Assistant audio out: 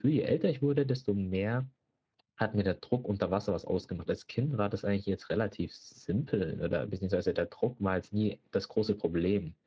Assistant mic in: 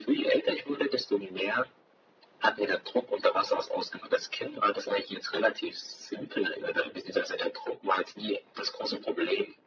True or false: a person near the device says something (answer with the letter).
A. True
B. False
B